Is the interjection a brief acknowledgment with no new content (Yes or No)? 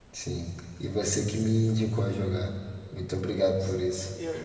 No